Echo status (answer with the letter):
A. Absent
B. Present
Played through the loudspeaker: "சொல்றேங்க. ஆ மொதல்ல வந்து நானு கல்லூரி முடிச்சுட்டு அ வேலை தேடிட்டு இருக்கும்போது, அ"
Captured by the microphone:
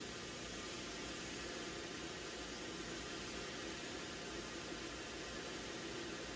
A